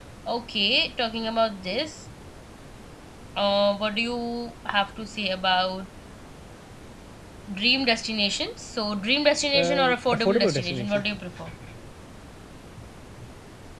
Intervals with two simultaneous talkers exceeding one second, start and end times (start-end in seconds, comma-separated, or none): 9.6-11.0